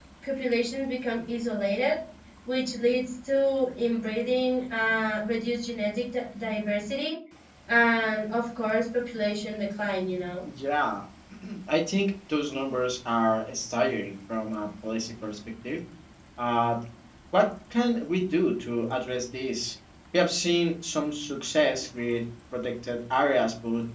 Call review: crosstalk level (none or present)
none